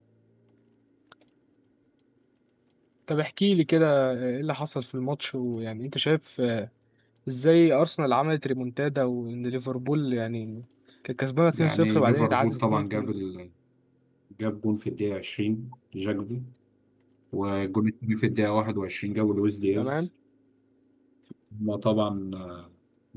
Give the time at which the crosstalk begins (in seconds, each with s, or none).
11.5 s